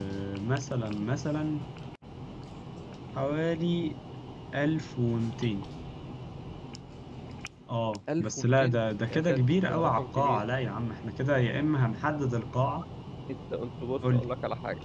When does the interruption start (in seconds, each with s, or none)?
8.2 s